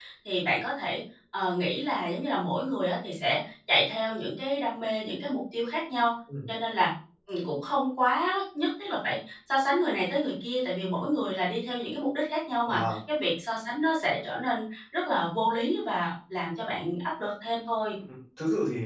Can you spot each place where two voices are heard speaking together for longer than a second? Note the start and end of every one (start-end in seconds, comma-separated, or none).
none